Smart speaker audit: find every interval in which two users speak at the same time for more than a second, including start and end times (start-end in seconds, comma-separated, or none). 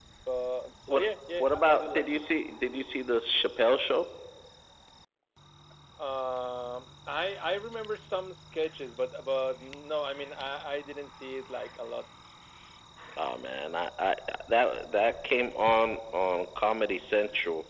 0.9-2.2